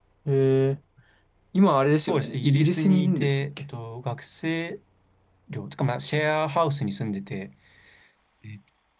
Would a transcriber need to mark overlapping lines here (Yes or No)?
Yes